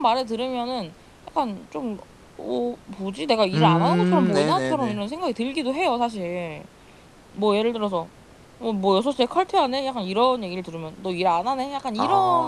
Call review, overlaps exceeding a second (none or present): present